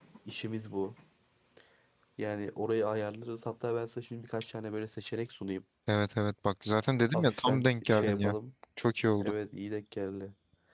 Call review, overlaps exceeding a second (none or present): present